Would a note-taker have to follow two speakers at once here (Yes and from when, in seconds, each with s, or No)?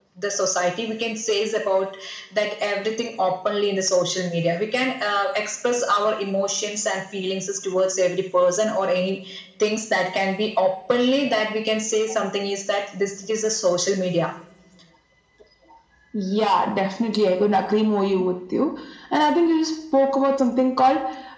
No